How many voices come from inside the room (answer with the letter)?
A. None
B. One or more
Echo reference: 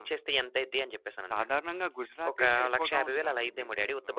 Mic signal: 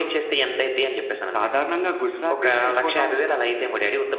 A